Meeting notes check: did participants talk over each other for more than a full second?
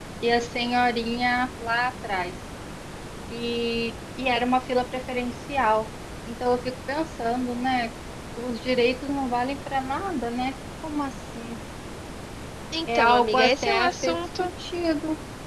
Yes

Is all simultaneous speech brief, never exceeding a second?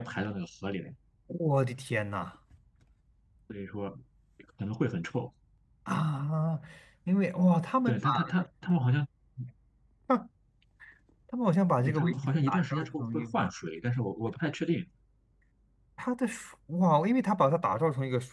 No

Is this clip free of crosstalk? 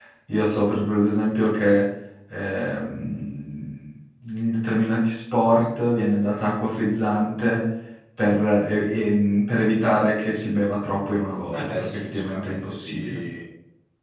No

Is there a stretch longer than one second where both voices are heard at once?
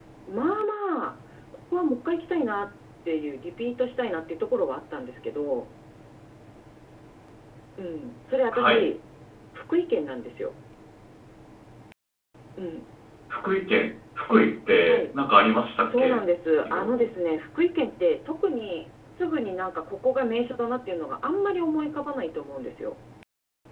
No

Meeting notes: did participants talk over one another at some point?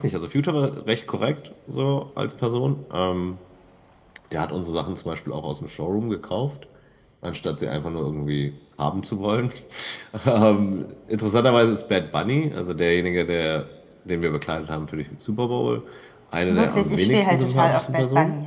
Yes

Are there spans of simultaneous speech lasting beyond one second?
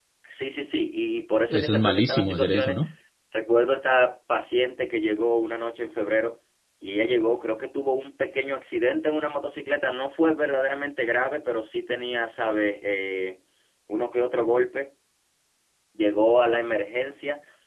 Yes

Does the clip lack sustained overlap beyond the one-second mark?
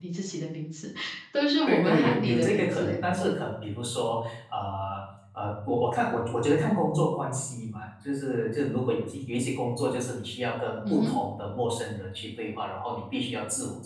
No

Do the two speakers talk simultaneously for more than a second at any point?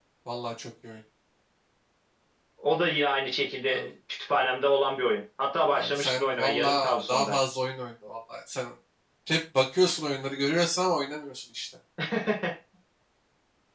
Yes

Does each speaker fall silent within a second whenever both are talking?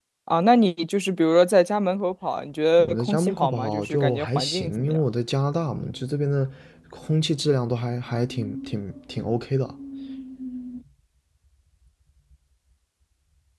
No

